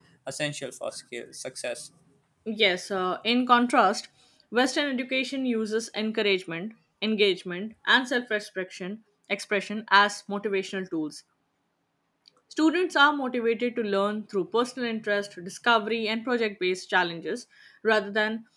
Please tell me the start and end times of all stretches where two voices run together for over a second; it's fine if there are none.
none

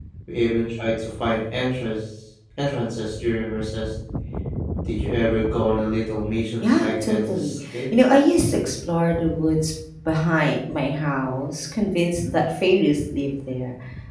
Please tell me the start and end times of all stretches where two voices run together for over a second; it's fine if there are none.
6.6-7.9

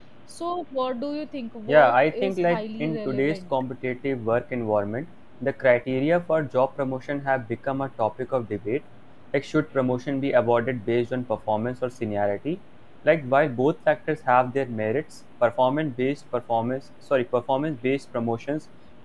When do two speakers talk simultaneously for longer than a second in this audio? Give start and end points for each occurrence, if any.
1.7-3.4

